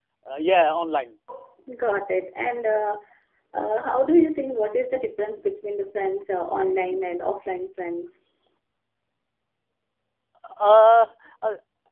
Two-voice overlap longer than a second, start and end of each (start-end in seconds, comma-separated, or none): none